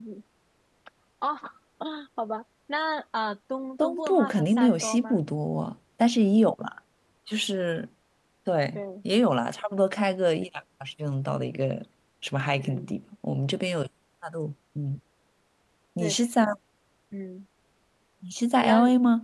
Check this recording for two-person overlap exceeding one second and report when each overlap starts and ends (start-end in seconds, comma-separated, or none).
3.8-5.2